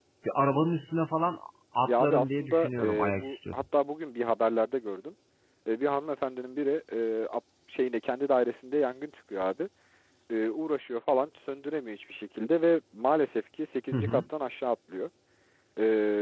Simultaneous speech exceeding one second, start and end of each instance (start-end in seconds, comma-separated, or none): 1.9-3.5